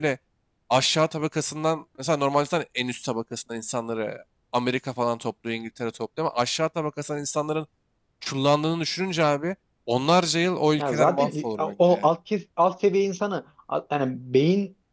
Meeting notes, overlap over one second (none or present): present